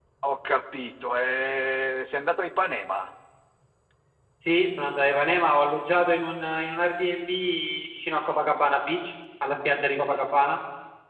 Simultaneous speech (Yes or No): No